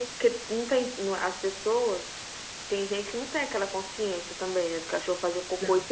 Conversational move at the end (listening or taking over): listening